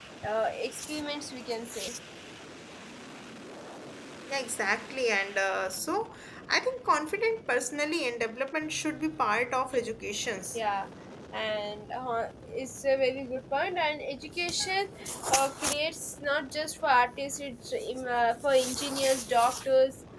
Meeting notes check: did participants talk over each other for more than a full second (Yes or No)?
No